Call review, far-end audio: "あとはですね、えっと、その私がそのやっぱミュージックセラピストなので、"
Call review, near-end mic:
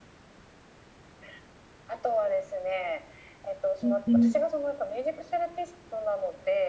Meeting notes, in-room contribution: present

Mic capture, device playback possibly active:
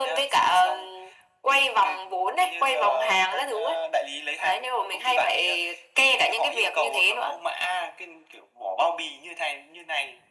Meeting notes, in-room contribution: none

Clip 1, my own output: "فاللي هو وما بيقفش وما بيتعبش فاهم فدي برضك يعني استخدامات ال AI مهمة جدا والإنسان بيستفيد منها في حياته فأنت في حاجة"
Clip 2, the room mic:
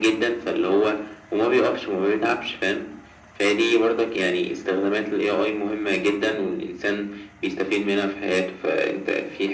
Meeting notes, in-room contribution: none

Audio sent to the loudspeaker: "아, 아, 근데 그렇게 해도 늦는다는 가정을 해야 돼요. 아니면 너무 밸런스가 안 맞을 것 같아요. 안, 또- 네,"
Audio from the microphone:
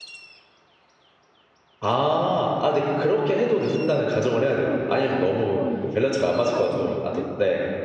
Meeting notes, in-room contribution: present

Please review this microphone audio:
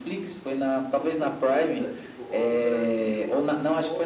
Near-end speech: present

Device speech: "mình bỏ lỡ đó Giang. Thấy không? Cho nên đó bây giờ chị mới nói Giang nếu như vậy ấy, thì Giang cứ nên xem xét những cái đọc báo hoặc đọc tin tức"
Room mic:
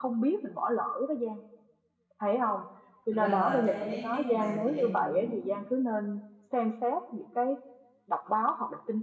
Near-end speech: present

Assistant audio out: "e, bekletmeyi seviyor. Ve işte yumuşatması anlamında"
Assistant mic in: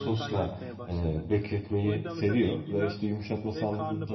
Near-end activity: present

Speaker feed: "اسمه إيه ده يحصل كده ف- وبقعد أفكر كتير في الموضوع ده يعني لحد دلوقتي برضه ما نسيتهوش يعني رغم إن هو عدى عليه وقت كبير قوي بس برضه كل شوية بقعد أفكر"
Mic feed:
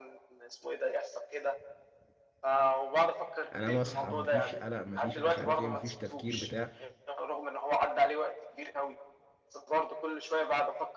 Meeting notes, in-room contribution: present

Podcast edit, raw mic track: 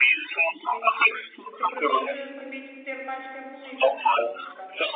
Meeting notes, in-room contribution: present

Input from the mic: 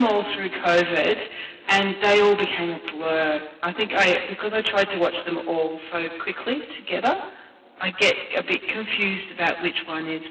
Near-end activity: none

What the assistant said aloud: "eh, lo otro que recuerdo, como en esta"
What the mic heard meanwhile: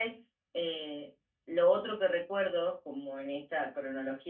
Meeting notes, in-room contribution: none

